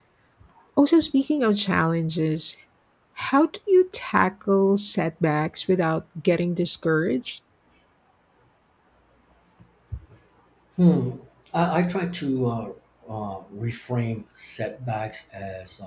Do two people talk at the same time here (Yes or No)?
No